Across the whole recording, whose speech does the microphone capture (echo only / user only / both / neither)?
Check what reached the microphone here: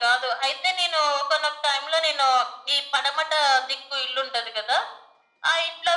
echo only